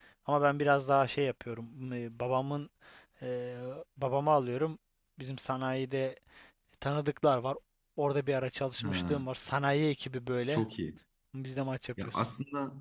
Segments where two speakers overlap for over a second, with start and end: none

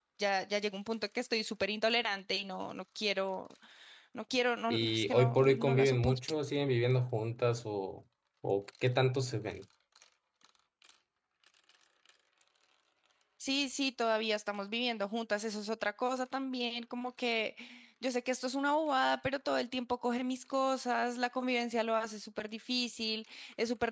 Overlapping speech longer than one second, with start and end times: 4.7-6.2

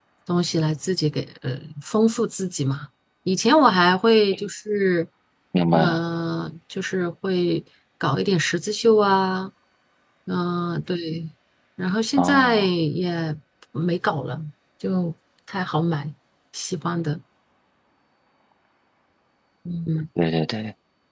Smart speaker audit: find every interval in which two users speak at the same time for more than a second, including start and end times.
none

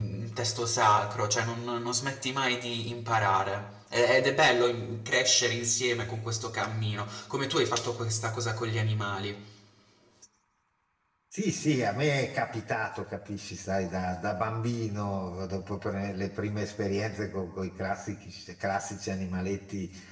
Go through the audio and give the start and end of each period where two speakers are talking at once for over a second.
none

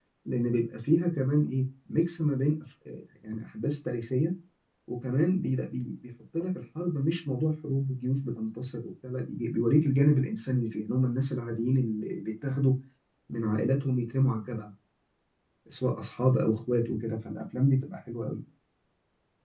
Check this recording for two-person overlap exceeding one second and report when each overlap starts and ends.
none

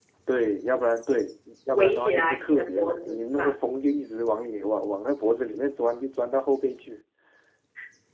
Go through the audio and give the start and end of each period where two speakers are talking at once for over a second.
1.7-3.5

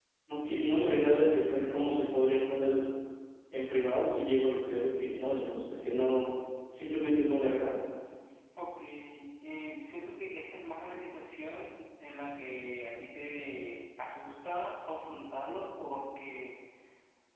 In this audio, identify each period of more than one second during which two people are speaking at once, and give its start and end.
none

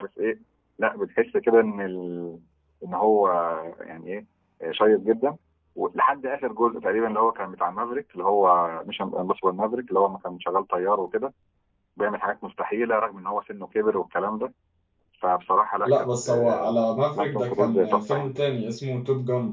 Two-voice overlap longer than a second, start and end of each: 15.8-18.3

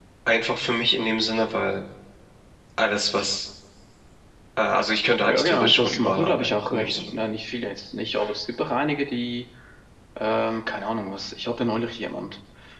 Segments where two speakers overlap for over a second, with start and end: 5.3-7.2

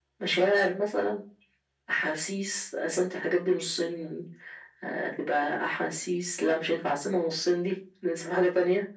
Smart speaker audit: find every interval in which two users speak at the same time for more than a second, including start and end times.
none

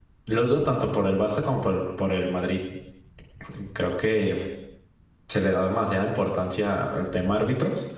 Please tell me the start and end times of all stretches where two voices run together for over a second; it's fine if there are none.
none

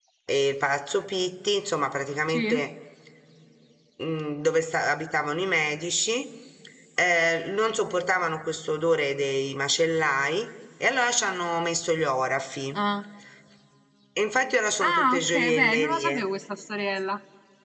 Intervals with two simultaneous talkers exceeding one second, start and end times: 14.8-16.2

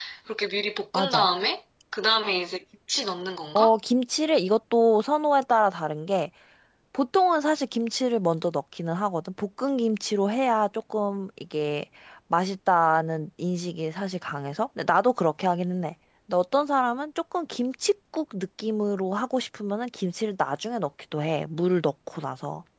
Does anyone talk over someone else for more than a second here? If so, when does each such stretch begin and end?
none

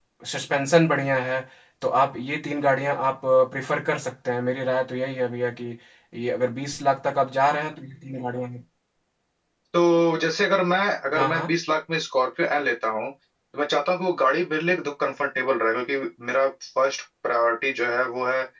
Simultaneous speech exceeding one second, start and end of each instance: none

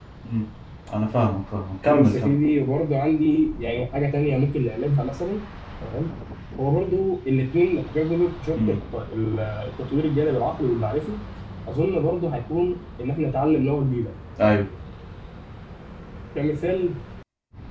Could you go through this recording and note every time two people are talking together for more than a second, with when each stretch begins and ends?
none

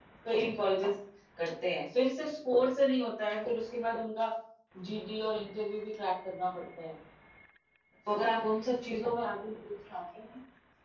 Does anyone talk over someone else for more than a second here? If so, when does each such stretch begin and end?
none

